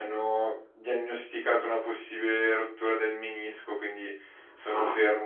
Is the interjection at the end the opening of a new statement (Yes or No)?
No